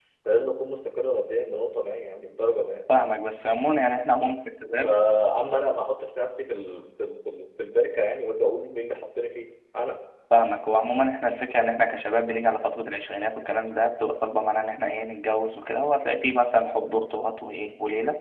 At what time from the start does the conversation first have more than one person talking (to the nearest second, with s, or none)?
none